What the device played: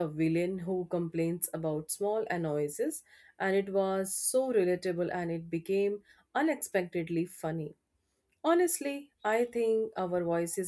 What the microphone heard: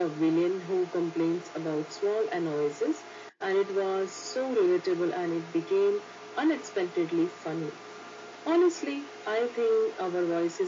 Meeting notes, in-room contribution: none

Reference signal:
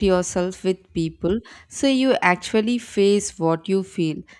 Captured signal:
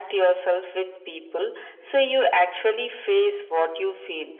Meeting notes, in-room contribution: none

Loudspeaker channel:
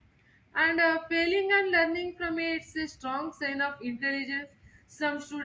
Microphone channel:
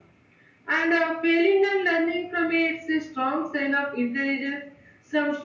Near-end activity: none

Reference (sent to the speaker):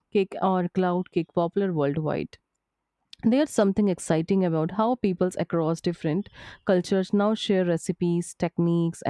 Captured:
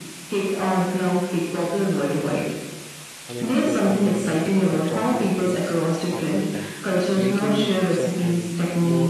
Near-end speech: present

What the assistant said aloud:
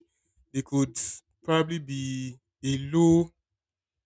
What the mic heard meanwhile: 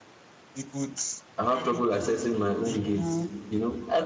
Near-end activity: present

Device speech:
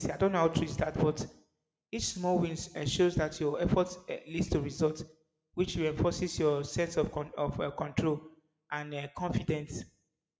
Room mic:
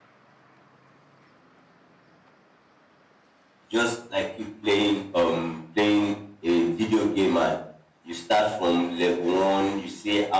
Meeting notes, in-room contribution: present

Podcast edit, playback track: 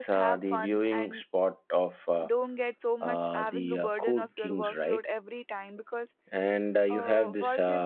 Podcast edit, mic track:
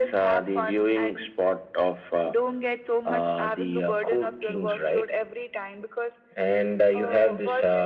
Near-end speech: none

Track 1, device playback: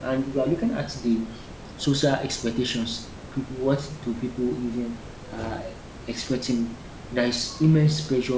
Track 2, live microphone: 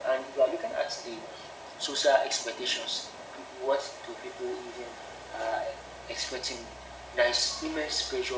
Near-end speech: none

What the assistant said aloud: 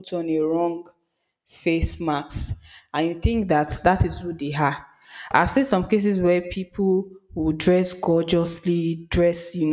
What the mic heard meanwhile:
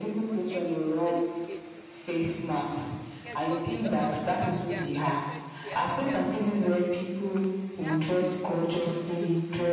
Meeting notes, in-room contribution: present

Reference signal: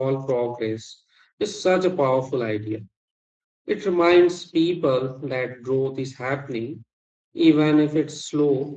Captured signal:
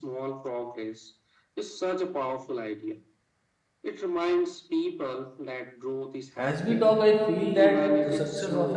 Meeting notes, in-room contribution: present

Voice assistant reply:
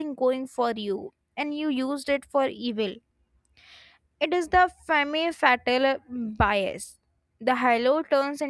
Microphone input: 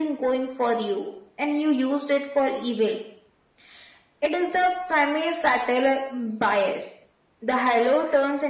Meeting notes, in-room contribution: none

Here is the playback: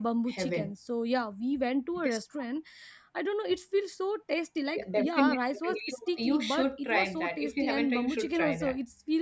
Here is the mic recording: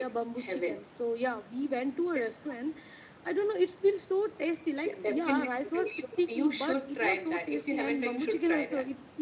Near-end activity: none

